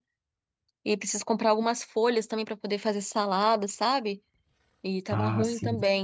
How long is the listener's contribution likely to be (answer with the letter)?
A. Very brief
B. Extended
A